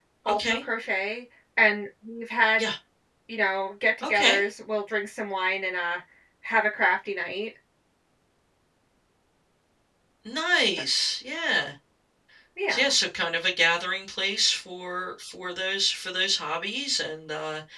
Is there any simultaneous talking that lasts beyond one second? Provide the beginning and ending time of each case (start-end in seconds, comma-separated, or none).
none